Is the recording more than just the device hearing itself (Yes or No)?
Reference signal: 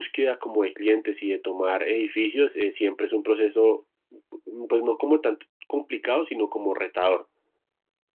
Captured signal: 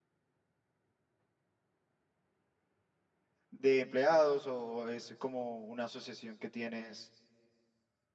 Yes